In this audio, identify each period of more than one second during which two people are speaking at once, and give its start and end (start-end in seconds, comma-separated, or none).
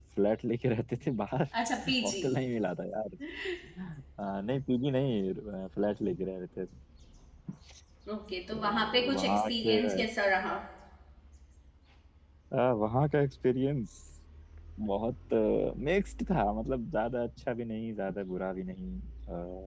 8.5-9.8